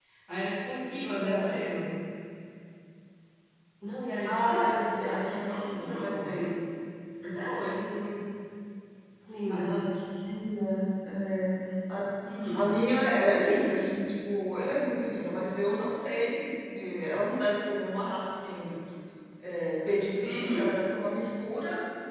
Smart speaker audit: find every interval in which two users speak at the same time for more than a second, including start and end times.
4.2-6.4

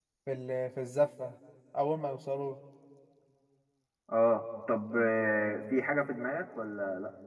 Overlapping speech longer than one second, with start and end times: none

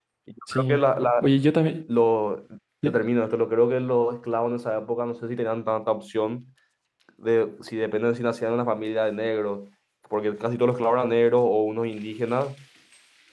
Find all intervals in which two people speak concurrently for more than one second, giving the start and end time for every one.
none

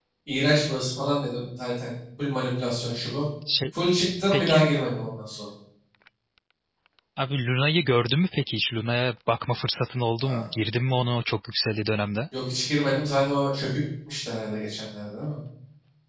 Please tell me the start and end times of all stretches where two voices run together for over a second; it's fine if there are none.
none

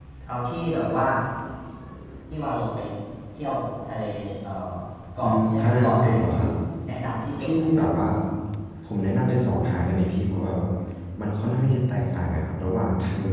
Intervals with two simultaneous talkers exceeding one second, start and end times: 5.2-6.4

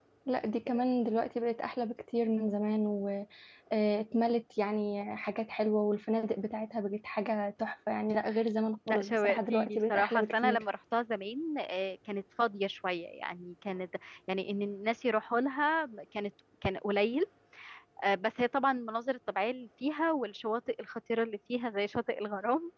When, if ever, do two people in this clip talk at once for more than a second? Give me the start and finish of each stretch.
8.9-10.6

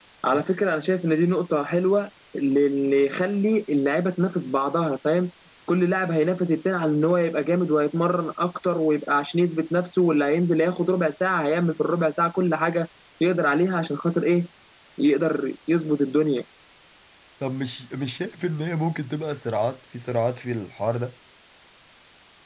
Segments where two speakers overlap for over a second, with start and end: none

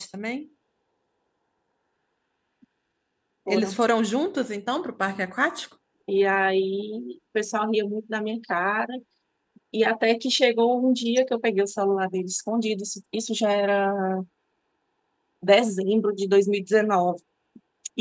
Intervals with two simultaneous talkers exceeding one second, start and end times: none

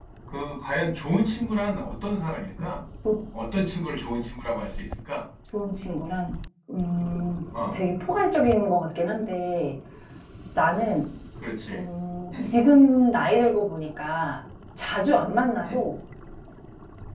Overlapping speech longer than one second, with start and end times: none

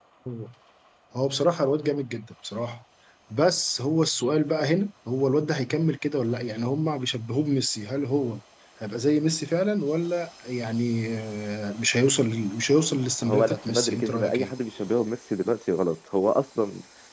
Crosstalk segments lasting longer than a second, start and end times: 13.2-14.5

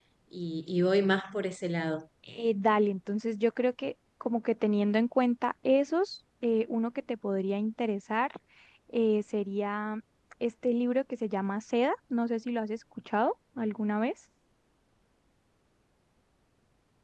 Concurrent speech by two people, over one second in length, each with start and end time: none

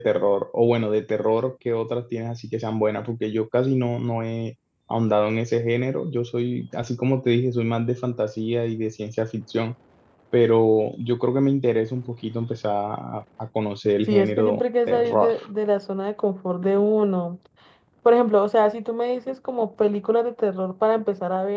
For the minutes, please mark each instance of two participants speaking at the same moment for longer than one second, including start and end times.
14.1-15.3

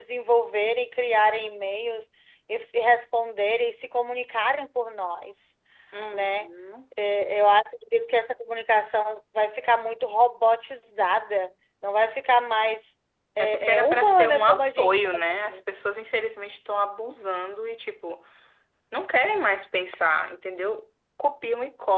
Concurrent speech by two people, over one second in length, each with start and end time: 13.4-15.6

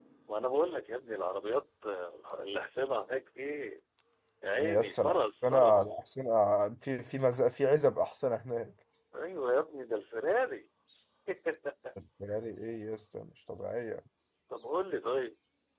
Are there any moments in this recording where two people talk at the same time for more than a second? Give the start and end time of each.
4.6-6.0

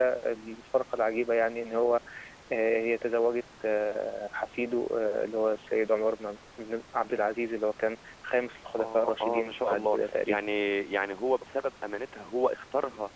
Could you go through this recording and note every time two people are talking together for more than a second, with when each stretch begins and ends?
8.8-10.4

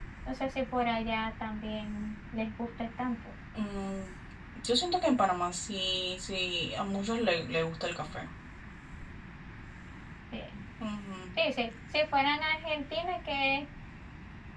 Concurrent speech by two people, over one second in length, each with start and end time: none

